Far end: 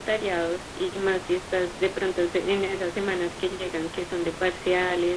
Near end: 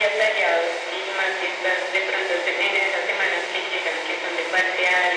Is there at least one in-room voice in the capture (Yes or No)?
No